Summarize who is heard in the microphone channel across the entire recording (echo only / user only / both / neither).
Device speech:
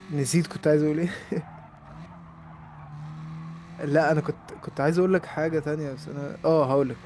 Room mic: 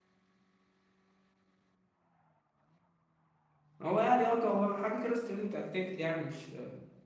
user only